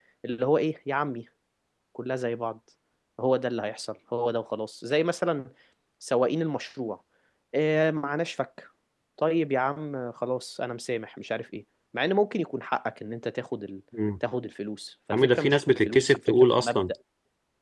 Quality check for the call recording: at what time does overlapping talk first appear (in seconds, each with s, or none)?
15.1 s